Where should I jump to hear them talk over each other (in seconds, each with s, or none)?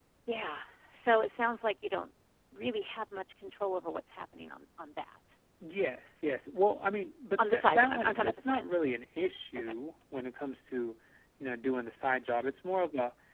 7.4 s